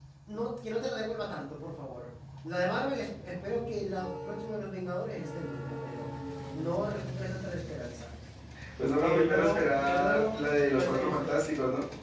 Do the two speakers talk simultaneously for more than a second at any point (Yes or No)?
Yes